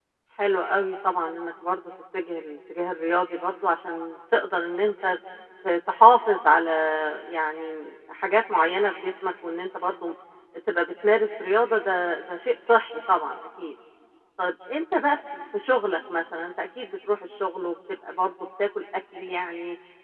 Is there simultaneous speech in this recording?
No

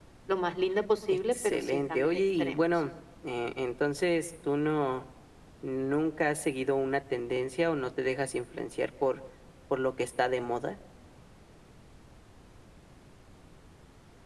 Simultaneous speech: Yes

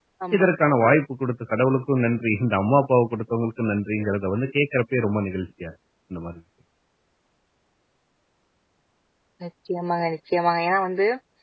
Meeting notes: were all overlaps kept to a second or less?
Yes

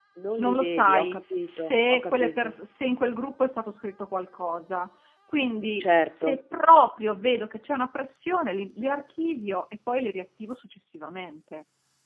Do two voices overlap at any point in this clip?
Yes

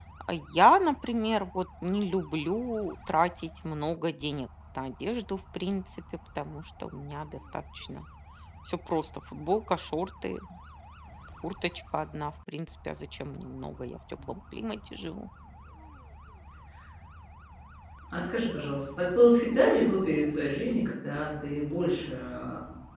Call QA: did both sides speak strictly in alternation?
Yes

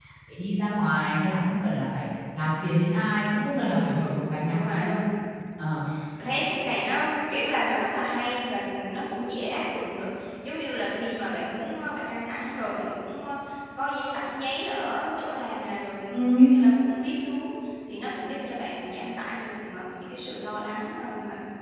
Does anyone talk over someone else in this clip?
Yes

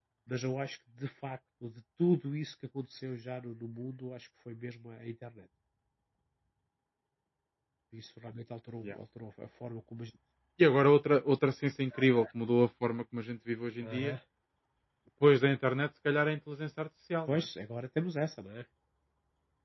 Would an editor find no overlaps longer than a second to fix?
Yes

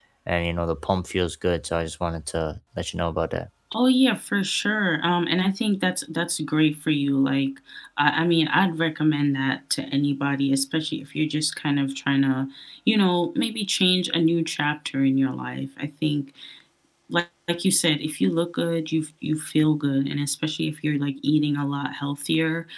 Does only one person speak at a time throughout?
Yes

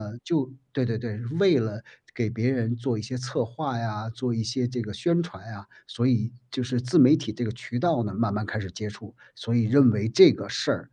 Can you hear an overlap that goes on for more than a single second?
No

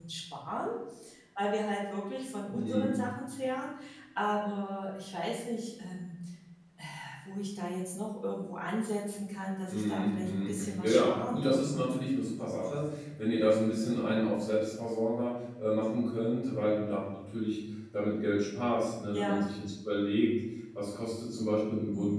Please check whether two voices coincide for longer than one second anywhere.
Yes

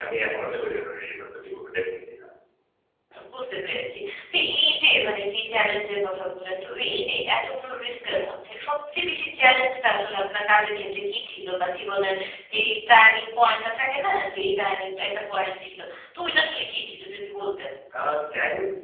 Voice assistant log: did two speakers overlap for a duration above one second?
No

